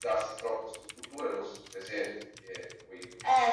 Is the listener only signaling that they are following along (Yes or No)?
No